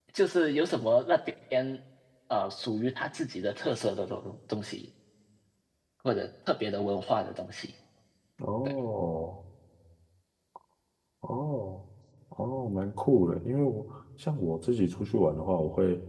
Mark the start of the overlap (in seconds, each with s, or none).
none